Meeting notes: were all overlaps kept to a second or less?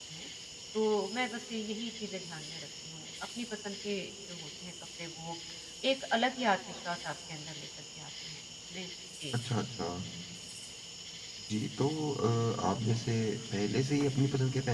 Yes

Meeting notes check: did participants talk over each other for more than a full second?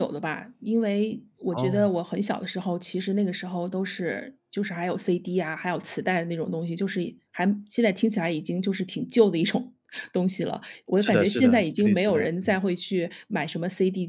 Yes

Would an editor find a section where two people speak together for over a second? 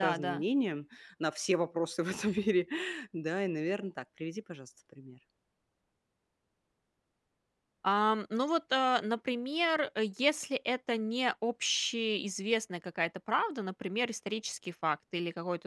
No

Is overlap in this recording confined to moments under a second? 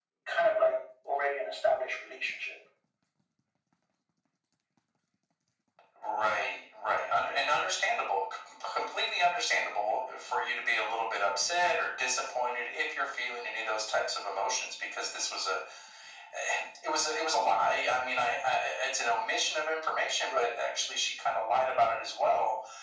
Yes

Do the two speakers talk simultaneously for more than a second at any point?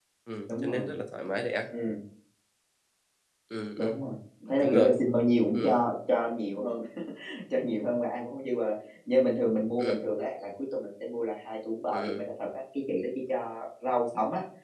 No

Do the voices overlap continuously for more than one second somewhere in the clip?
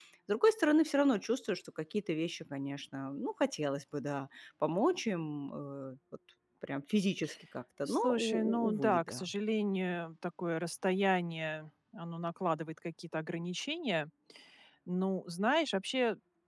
Yes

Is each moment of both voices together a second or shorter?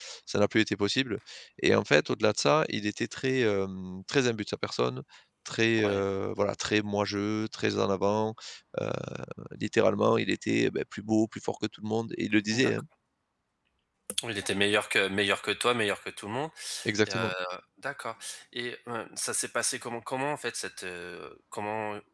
Yes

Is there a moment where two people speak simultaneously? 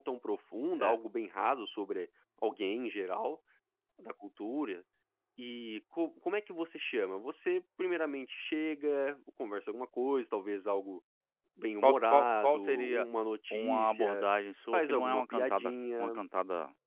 Yes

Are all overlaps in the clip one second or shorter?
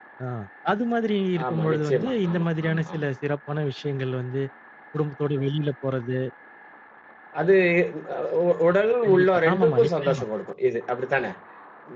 No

